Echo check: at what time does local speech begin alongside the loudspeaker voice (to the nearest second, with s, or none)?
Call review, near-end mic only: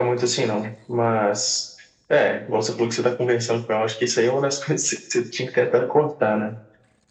none